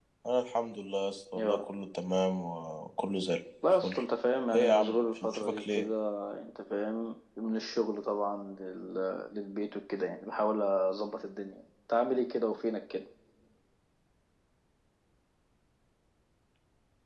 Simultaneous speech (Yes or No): Yes